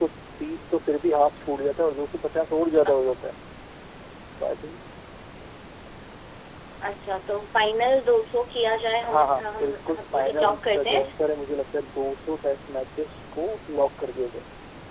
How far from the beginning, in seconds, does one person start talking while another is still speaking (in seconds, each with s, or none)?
9.0 s